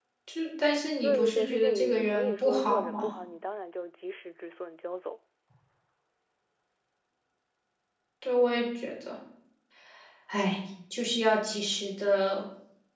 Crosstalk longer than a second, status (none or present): present